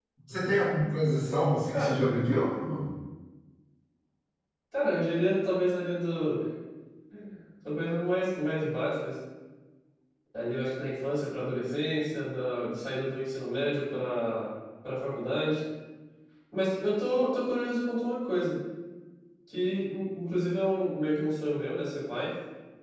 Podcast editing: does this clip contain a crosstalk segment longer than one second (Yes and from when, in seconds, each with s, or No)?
No